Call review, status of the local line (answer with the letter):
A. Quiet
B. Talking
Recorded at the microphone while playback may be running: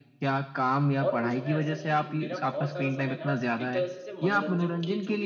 B